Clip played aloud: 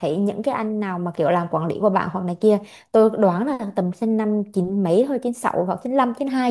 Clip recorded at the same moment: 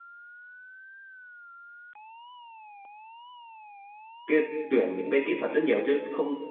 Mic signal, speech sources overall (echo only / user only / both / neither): user only